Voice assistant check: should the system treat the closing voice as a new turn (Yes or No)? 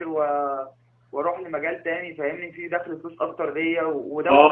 Yes